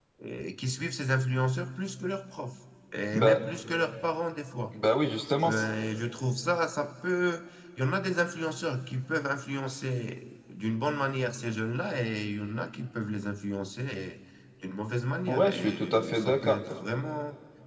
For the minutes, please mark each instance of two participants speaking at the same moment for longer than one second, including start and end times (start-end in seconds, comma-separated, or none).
15.3-16.6